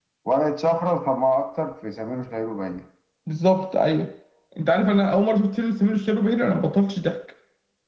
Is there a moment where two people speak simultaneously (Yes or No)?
No